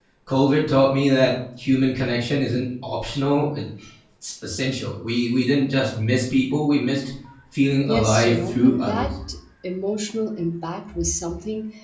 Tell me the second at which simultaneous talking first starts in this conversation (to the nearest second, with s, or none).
8 s